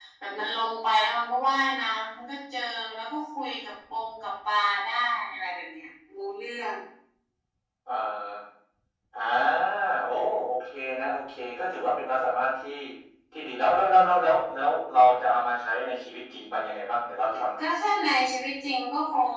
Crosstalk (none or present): none